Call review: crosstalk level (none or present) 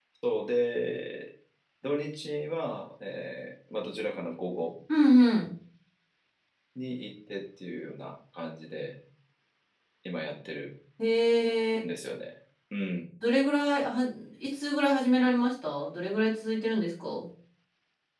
none